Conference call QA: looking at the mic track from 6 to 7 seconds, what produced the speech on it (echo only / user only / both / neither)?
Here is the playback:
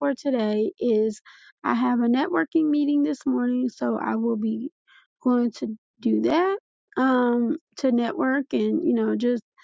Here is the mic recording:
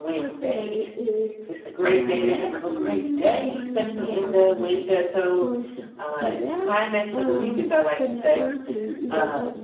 both